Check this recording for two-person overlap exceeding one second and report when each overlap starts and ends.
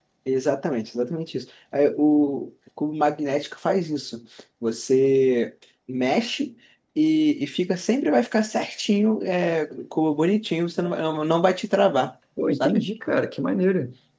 none

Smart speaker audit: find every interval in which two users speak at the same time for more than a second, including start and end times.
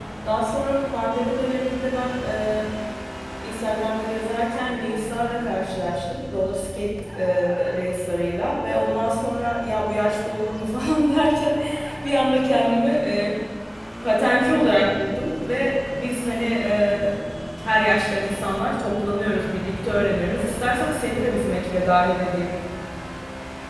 none

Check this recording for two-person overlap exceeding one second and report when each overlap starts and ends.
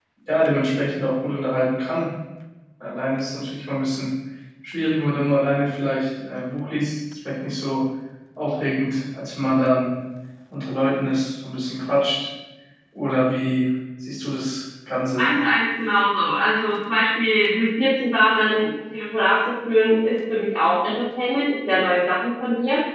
none

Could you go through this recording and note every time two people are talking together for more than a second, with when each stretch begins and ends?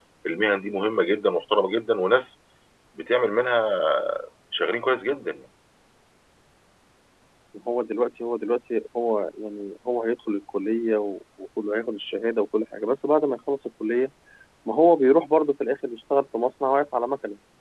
none

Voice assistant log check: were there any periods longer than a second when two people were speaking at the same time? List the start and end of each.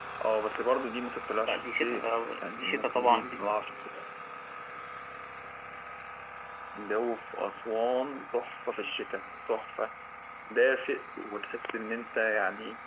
1.5-3.4

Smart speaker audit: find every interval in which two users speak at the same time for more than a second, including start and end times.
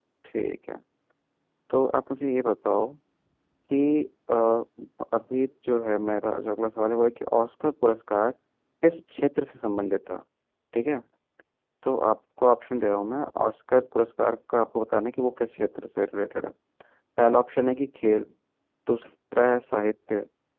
none

